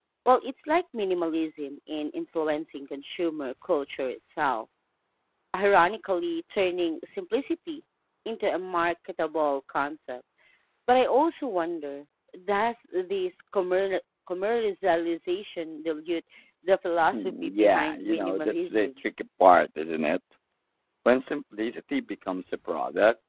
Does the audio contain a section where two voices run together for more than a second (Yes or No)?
Yes